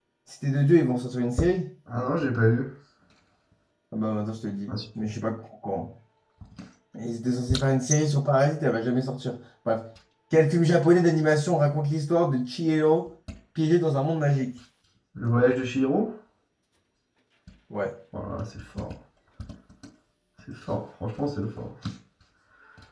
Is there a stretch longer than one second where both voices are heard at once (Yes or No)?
No